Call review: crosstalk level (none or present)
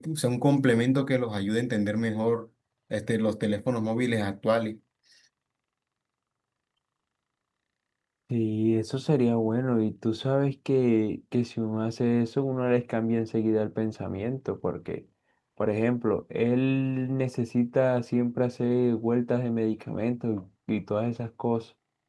none